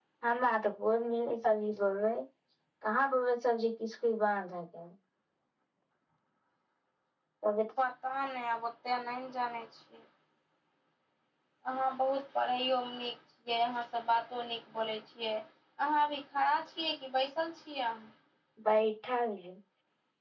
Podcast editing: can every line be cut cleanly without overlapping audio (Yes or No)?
Yes